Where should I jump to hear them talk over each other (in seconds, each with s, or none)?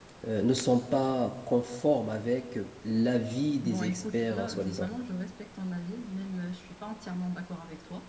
3.6 s